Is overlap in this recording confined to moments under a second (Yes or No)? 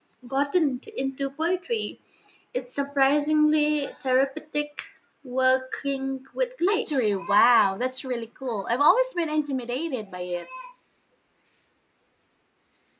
Yes